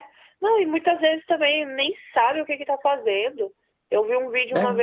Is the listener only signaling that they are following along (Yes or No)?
Yes